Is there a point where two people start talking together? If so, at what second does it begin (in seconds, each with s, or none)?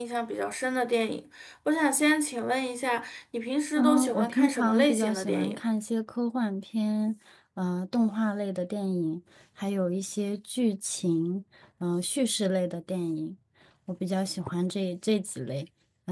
3.8 s